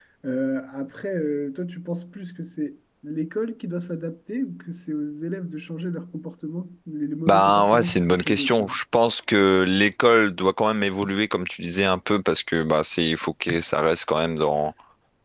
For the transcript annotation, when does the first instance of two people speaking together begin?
7 s

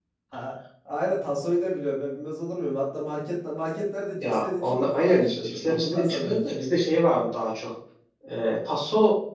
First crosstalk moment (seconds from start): 4 s

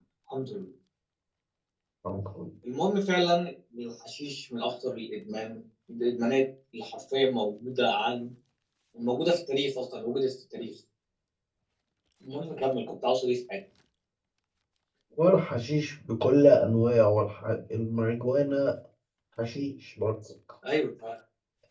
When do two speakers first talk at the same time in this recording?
none

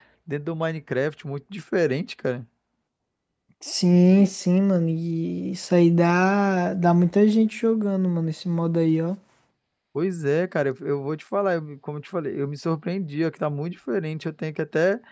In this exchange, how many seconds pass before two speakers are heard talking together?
none

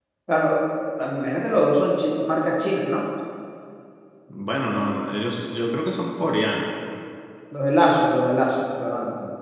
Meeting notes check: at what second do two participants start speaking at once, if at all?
none

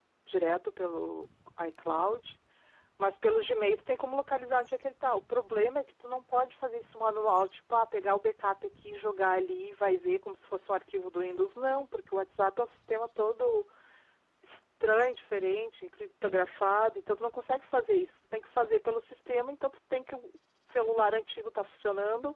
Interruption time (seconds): none

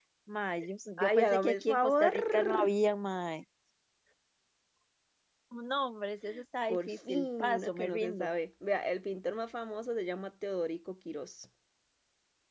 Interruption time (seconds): 1 s

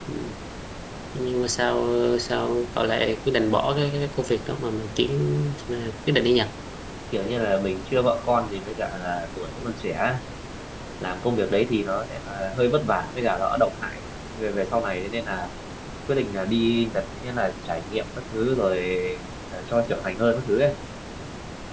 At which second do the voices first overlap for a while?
none

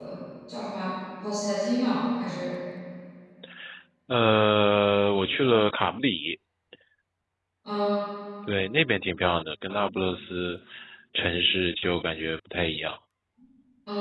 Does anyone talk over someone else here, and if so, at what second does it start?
none

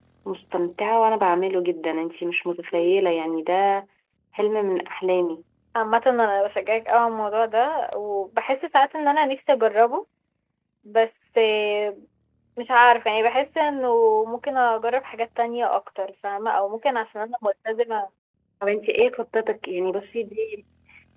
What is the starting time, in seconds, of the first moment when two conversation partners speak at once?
none

